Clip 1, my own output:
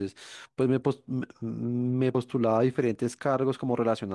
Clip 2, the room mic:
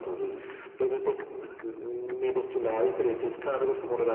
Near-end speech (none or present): none